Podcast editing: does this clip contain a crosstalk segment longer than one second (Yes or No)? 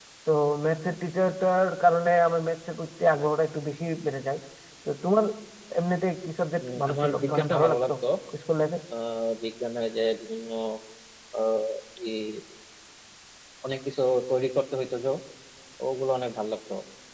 Yes